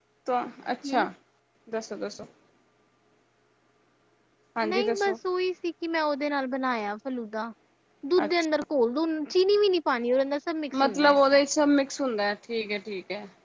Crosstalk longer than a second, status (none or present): none